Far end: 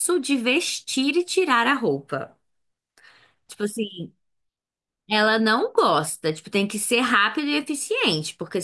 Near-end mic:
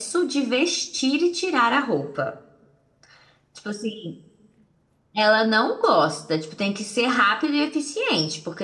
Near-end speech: none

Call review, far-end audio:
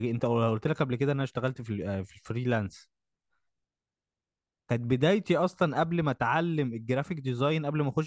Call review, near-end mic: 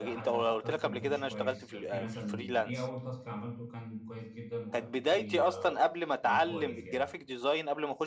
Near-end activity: present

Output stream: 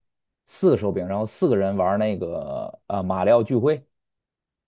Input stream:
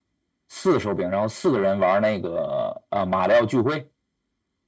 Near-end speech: none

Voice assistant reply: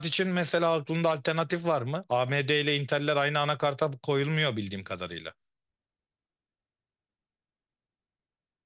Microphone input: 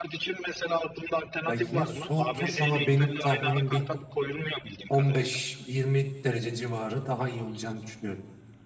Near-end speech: present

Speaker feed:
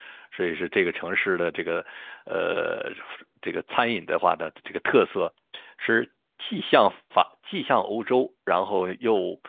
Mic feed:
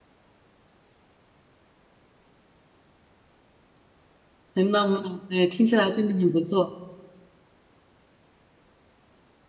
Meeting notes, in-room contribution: present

